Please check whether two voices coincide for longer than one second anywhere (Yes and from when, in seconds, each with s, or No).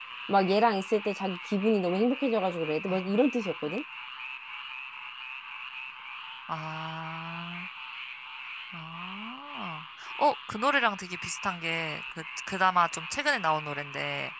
No